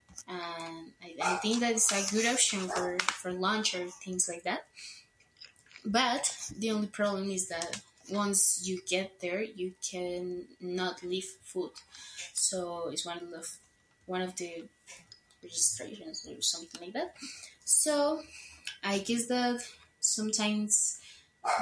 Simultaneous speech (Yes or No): No